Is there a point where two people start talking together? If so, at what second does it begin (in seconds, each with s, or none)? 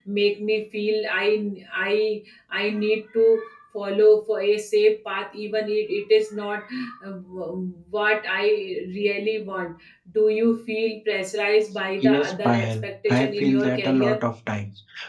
12.0 s